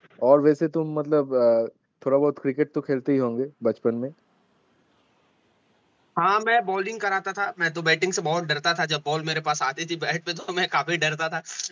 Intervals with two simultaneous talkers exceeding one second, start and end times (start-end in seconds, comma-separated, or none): none